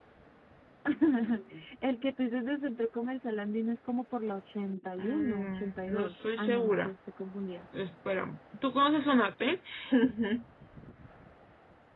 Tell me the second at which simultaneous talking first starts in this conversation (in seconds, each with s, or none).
5.0 s